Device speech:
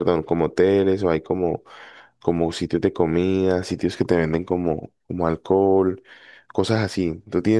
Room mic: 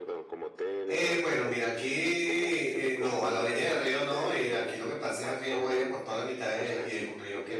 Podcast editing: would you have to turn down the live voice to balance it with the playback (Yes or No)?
Yes